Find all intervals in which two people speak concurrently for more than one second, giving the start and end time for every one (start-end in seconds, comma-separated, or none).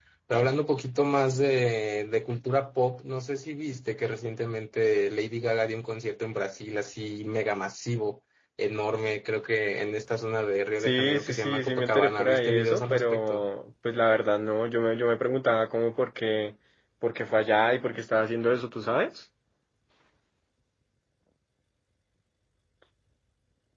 10.8-13.4